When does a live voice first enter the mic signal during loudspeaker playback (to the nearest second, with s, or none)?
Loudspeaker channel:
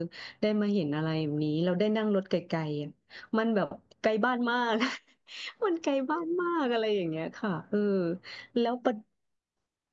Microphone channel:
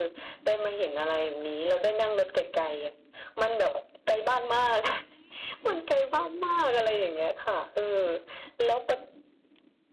none